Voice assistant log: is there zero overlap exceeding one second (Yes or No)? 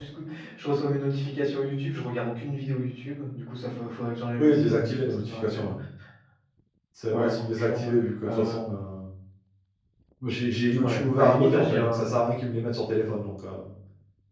No